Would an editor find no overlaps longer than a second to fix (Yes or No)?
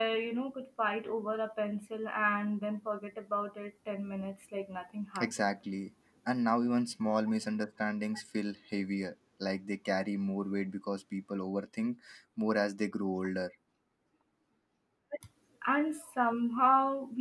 Yes